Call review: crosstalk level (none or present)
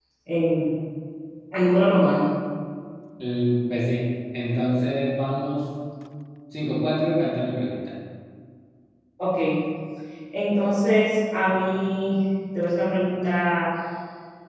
none